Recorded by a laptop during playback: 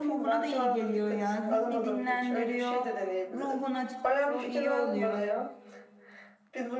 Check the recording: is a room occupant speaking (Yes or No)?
Yes